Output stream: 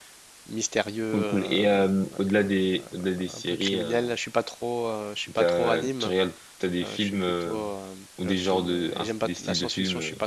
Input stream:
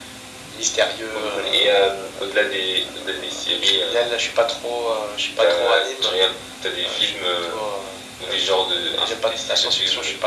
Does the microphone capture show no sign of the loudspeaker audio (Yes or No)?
No